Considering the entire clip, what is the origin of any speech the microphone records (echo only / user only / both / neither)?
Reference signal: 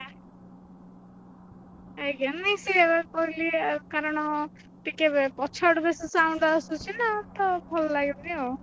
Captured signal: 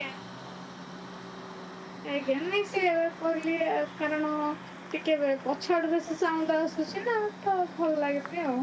echo only